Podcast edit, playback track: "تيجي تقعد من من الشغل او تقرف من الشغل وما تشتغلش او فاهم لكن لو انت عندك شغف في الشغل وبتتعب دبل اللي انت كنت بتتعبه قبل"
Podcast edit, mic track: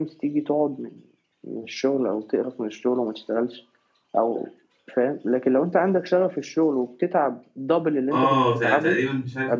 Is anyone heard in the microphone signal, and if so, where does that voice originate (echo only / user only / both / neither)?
both